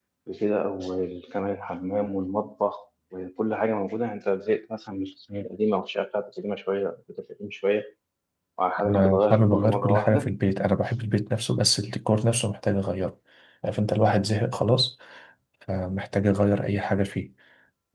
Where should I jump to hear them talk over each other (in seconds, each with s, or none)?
8.9 s